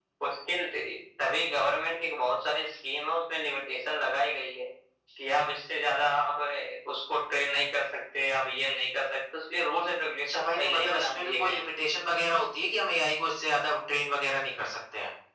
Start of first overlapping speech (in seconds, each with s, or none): 10.3 s